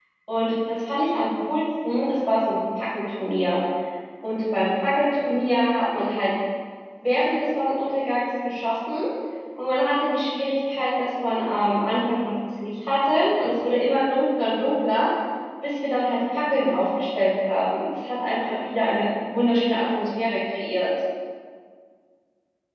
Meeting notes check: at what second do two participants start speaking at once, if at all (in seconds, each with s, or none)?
none